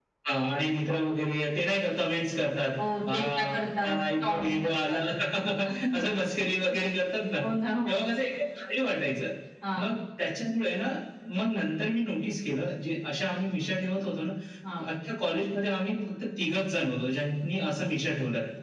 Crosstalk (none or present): present